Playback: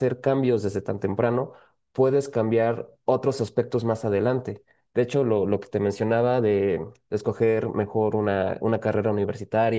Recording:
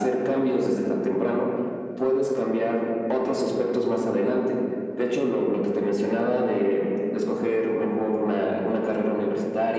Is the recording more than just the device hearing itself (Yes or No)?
No